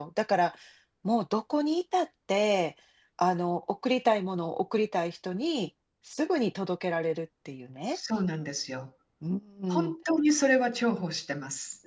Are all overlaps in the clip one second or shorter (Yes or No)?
Yes